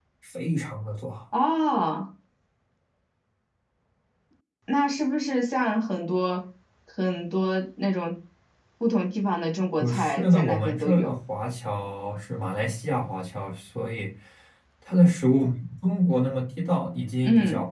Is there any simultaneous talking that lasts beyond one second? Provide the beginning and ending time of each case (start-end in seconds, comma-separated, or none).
9.8-11.1